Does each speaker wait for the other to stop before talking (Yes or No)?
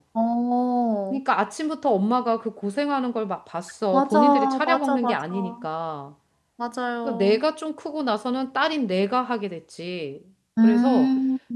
No